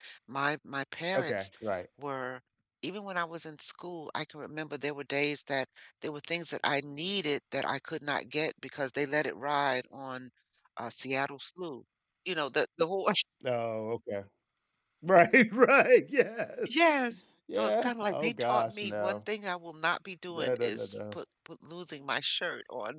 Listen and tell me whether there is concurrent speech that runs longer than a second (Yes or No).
Yes